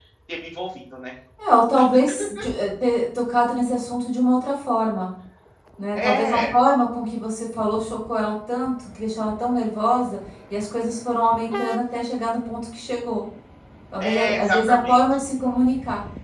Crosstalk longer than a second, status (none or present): present